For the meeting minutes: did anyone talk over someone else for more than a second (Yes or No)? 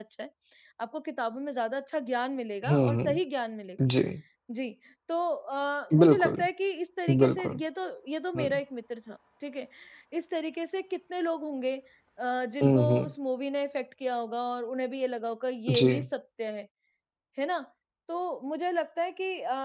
No